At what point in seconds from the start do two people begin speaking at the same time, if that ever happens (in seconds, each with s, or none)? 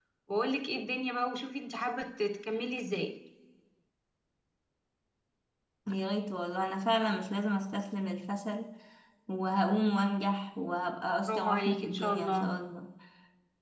11.3 s